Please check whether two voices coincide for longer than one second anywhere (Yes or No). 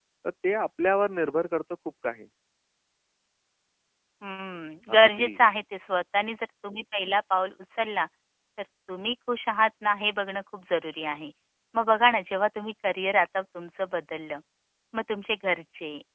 No